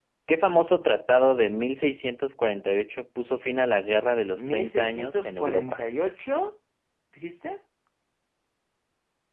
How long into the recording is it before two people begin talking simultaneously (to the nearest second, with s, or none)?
4 s